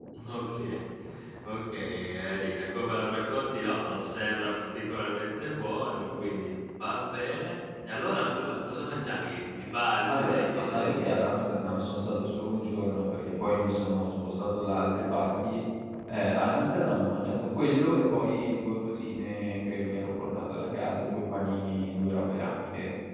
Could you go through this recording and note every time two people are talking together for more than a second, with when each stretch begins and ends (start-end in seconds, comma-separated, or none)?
10.1-11.3